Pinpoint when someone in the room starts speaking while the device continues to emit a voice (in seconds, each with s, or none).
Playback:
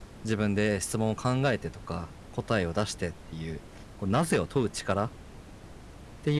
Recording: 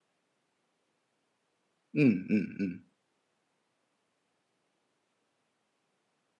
1.9 s